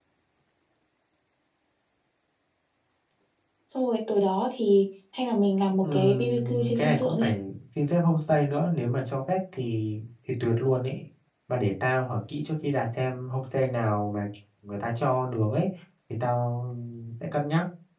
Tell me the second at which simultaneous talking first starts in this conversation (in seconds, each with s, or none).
5.8 s